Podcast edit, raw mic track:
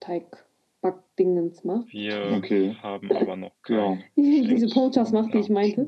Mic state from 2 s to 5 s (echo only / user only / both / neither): both